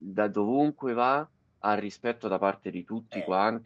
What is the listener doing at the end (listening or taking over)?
listening